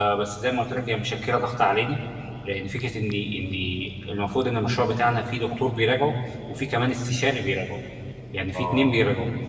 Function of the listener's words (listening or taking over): listening